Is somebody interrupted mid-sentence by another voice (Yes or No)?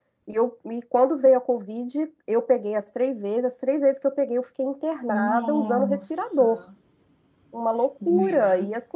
Yes